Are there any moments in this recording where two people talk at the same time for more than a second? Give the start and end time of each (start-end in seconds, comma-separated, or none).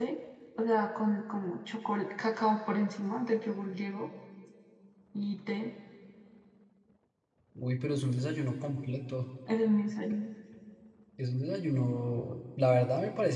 none